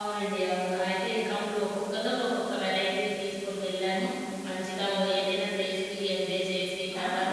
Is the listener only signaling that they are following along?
No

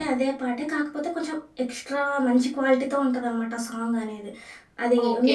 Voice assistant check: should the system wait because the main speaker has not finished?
No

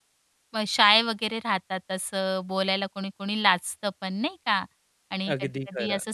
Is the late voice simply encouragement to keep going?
Yes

